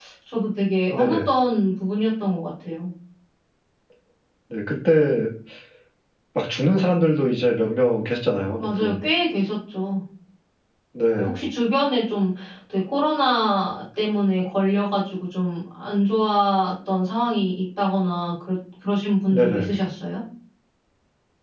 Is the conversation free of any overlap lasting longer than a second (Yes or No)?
Yes